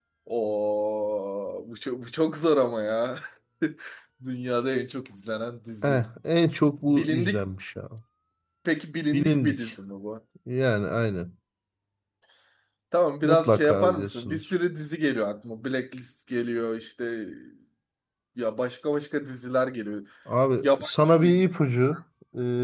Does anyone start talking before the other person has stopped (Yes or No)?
Yes